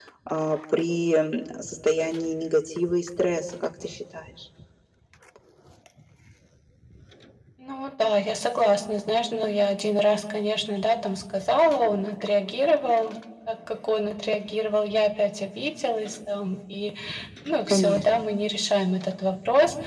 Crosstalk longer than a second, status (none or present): none